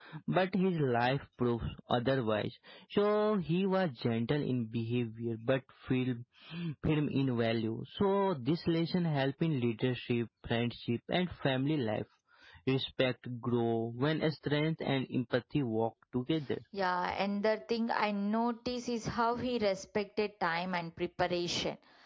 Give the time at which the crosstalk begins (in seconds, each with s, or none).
none